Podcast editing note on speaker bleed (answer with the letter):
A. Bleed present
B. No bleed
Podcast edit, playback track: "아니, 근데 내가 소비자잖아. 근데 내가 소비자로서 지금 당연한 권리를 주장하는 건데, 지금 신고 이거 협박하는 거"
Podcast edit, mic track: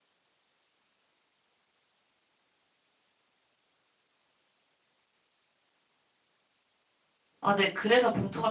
B